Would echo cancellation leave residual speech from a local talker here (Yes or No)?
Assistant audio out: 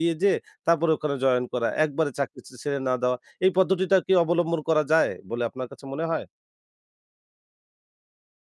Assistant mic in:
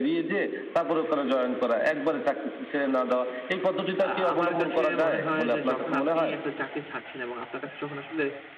Yes